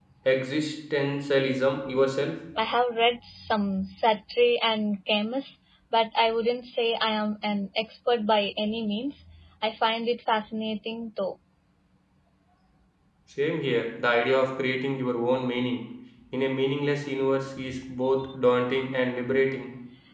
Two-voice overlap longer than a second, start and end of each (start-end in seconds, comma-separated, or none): none